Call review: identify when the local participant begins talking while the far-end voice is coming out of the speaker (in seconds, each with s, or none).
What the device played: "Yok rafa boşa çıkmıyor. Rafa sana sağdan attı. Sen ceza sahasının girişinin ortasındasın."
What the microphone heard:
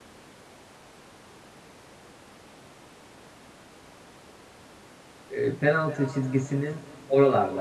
5.3 s